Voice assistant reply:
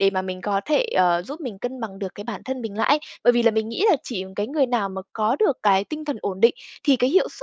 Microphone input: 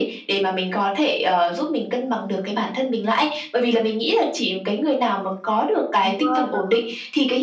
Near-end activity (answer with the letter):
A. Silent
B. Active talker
B